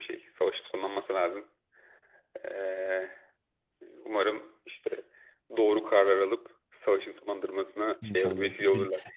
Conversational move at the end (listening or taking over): taking over